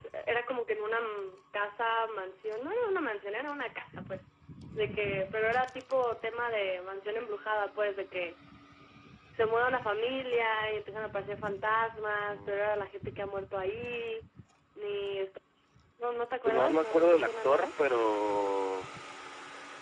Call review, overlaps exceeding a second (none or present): present